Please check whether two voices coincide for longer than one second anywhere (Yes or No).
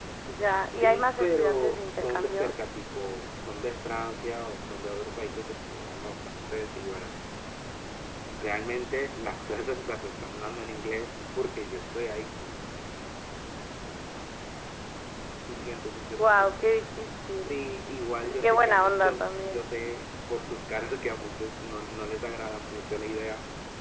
Yes